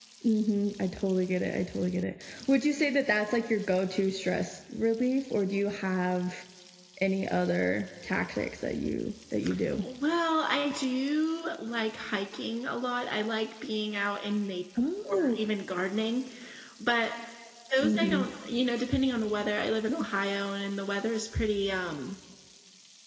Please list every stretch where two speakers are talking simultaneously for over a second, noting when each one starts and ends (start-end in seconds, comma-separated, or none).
none